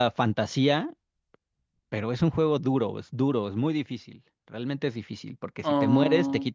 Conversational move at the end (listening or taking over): listening